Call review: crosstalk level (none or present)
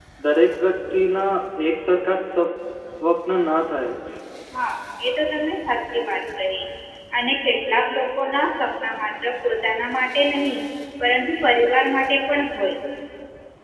none